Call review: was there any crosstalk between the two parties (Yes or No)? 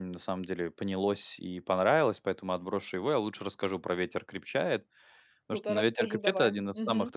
Yes